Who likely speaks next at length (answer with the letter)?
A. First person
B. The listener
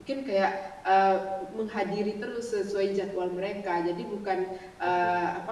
A